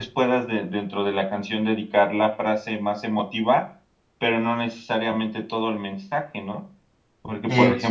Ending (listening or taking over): listening